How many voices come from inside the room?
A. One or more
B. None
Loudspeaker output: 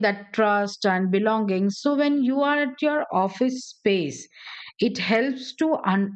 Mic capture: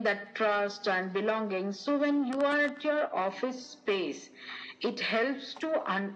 B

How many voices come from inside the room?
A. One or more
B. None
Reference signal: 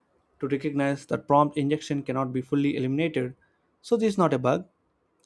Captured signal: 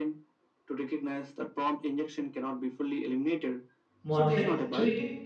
A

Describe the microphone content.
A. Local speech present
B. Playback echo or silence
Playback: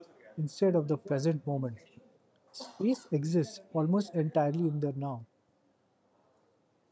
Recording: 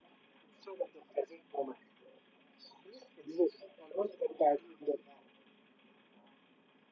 B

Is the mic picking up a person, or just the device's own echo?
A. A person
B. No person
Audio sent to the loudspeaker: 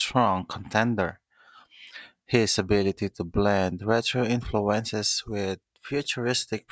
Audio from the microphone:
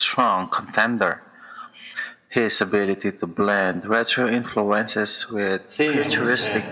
A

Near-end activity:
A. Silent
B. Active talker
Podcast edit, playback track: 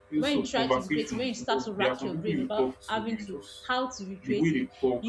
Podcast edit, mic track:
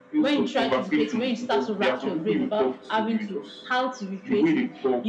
A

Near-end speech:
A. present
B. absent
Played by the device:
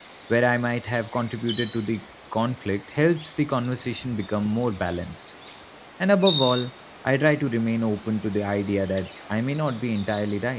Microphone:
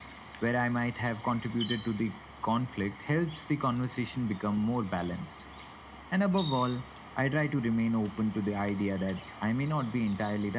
B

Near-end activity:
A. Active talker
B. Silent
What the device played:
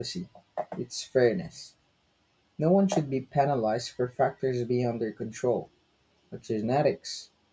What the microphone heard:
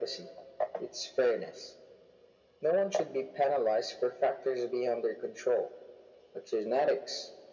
B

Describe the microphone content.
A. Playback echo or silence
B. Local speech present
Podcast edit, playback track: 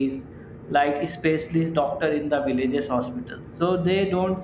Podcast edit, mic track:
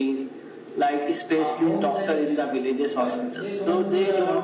B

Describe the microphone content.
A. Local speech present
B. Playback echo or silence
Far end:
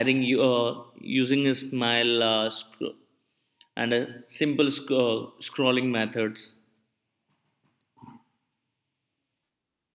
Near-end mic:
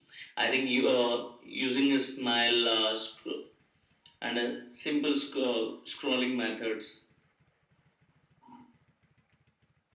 B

